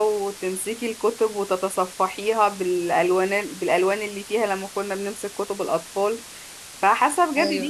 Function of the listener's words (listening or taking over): listening